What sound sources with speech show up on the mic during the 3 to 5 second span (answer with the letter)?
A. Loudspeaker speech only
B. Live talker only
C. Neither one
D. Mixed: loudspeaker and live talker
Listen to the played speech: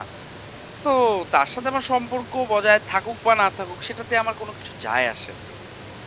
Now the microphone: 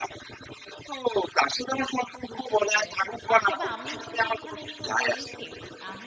D